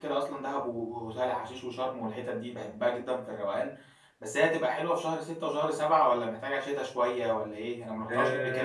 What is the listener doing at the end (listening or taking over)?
taking over